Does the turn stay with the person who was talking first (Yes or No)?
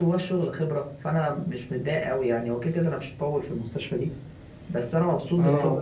Yes